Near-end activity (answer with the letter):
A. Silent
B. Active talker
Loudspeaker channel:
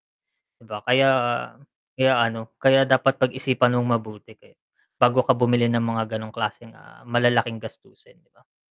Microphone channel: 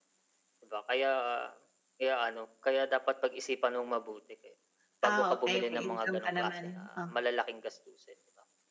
B